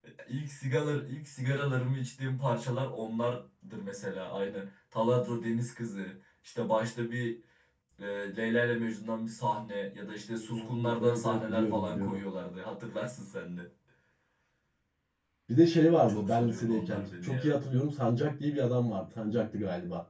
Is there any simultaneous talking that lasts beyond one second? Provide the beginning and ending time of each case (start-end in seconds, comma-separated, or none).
10.4-12.2, 16.1-17.6